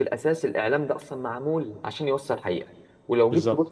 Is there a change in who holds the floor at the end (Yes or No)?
No